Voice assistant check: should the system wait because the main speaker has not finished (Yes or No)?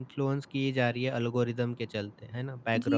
No